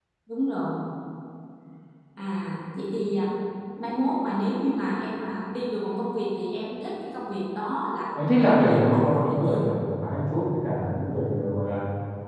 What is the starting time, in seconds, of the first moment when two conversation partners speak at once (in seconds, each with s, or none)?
8.2 s